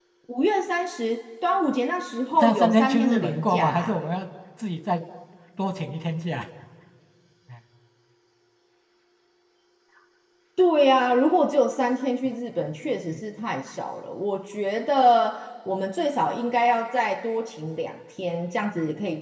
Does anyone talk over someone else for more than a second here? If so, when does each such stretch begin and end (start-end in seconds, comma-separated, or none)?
2.4-4.0